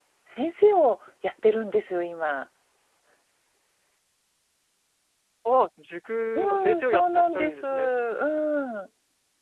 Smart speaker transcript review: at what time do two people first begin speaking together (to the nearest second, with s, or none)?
6 s